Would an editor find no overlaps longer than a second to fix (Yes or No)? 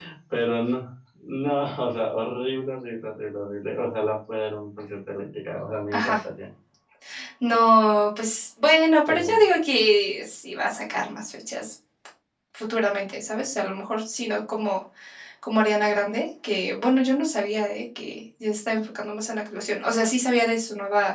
Yes